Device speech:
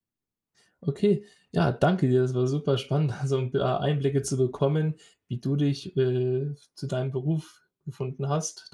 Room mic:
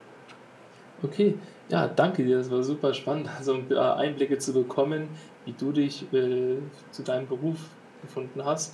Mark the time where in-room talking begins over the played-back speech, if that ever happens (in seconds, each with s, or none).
none